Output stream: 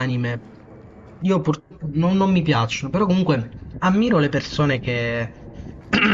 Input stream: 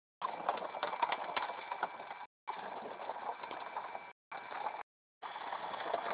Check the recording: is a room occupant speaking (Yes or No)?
No